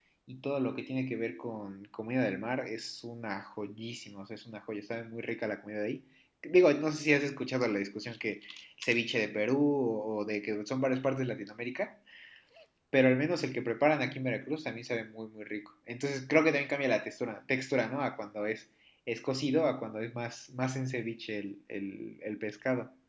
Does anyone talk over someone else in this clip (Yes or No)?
No